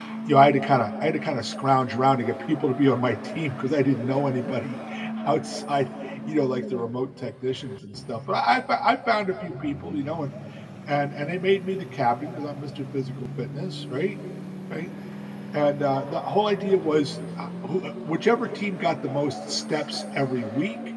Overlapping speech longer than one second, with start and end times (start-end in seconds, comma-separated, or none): none